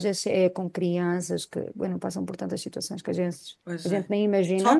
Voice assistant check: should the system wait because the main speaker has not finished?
No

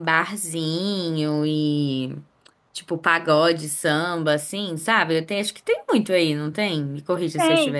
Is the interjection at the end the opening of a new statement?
Yes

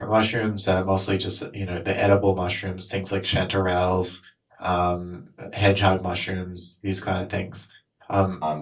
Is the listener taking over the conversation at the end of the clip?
No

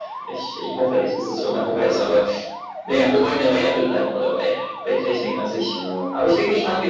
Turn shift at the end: No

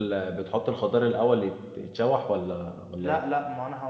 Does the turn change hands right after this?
Yes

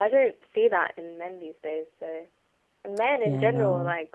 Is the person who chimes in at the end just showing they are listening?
Yes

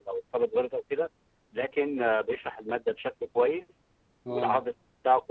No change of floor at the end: Yes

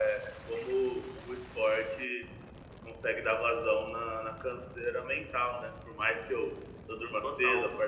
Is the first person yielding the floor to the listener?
No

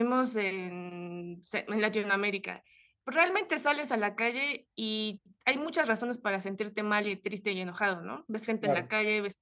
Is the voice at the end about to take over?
No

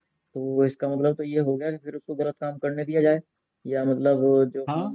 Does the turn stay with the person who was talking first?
Yes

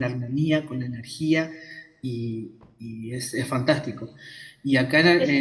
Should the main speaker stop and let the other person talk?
No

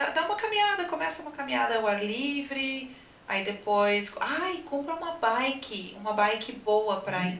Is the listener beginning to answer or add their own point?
No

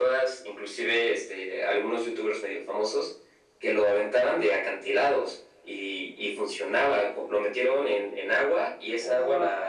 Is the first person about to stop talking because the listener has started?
No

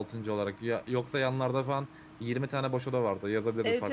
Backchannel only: No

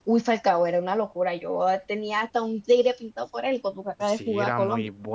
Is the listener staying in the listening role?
No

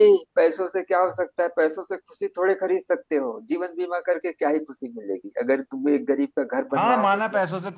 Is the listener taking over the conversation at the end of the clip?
Yes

